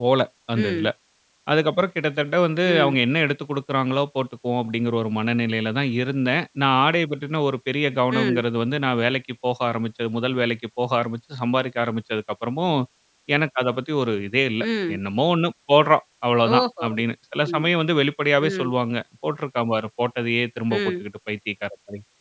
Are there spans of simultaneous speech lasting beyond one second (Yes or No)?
No